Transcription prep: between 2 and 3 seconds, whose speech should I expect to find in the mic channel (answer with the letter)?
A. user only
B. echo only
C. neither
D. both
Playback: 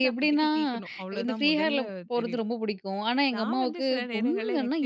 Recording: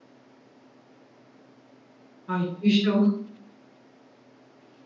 A